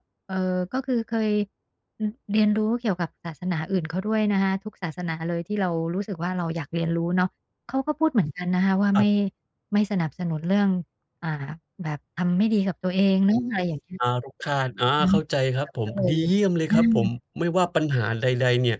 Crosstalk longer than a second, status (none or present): none